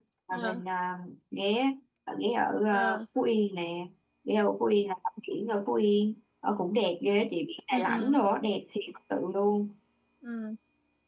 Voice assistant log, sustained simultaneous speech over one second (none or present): none